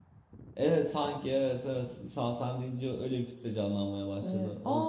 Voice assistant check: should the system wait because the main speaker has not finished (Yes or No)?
No